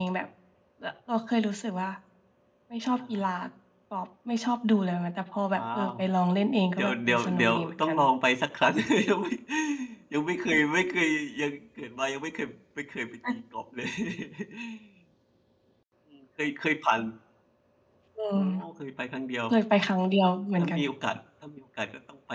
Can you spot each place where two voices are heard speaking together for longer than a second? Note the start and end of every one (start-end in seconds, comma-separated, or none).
6.7-8.0